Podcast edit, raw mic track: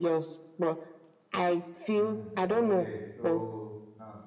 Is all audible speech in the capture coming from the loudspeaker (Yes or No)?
No